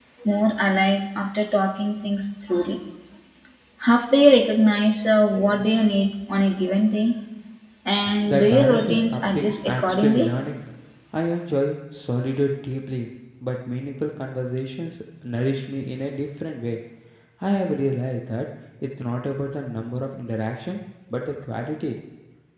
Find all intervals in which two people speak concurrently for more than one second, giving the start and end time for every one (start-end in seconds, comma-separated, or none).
8.2-10.3